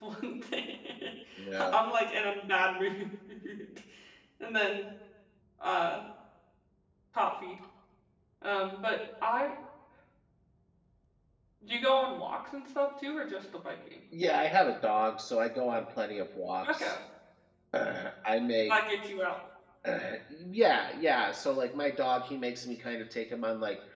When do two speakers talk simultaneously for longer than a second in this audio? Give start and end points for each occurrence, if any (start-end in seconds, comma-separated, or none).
none